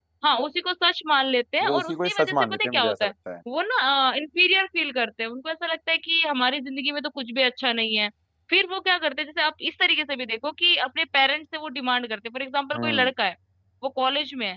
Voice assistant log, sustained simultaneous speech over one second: present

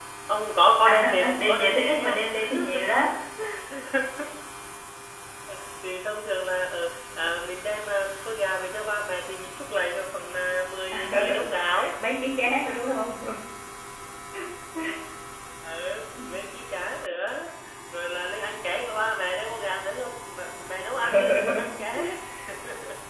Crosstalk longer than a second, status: present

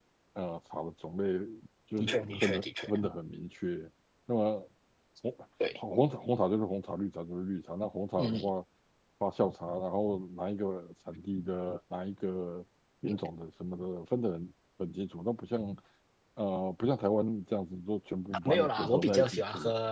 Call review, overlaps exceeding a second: present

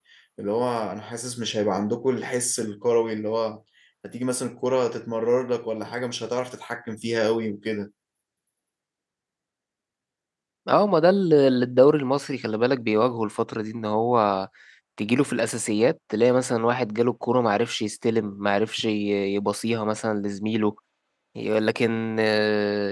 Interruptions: none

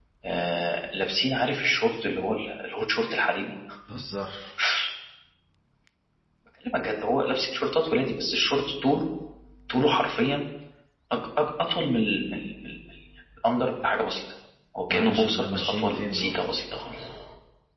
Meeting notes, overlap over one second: present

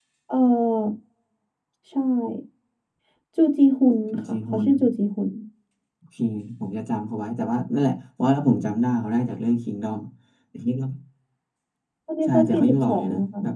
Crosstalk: present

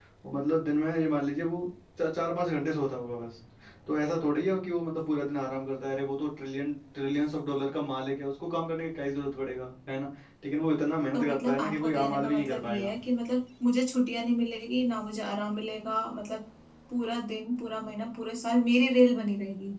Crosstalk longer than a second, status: present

